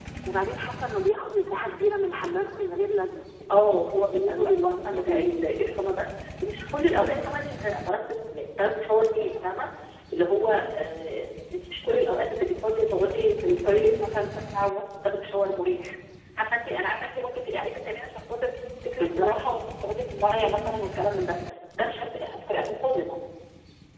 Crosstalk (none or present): present